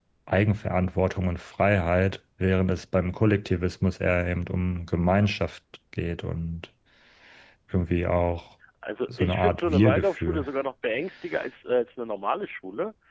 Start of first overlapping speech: 9.1 s

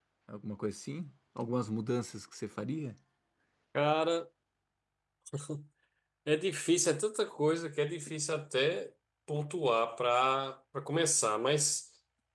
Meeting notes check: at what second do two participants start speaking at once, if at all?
none

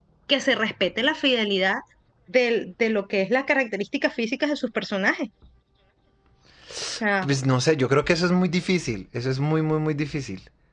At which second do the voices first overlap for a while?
none

